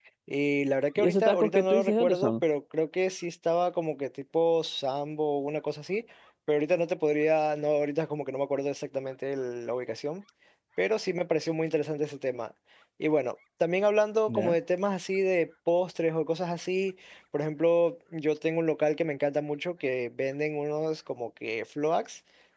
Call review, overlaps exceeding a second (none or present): present